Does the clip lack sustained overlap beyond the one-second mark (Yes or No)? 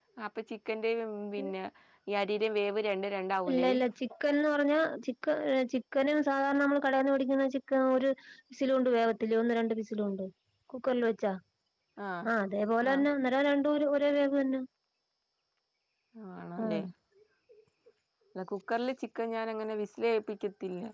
Yes